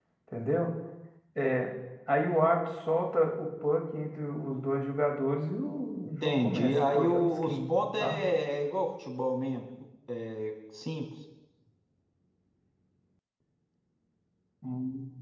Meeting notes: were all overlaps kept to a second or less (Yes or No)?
No